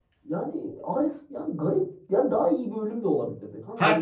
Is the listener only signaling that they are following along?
No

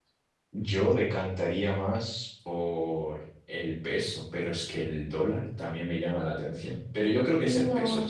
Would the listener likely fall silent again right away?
No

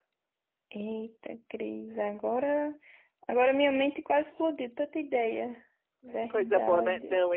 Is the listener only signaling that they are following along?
No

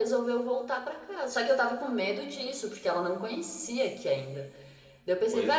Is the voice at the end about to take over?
No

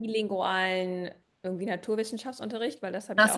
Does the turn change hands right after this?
Yes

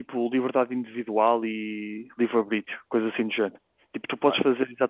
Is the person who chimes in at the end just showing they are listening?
Yes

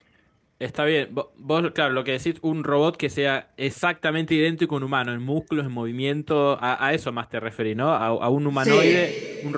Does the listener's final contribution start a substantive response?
No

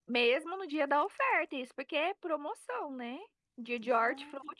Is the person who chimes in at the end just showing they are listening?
Yes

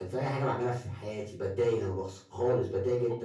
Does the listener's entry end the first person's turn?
Yes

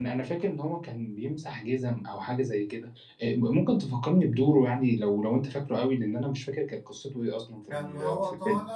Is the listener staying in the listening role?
No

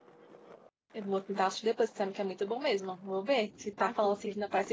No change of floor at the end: Yes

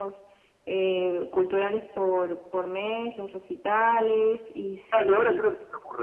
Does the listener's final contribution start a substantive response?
Yes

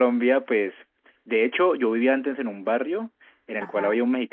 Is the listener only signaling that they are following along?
Yes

